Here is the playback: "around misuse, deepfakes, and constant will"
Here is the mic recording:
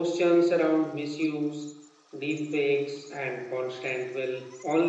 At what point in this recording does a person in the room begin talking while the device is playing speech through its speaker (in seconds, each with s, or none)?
none